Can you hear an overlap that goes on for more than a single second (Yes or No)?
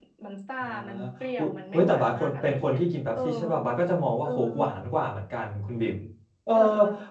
Yes